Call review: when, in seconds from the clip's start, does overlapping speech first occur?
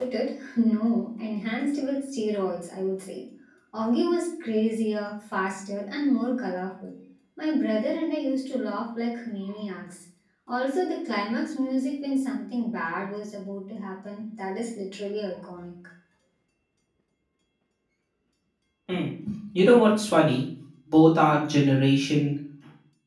none

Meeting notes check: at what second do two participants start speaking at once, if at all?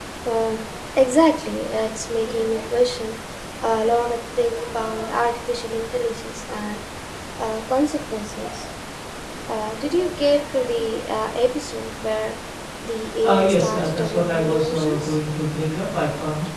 13.2 s

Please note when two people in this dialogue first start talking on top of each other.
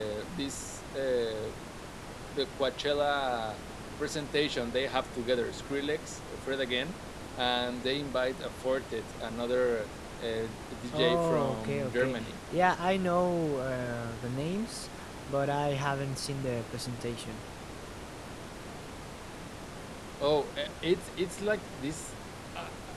10.9 s

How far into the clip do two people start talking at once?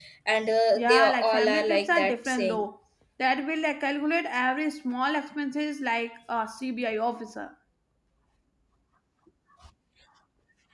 0.8 s

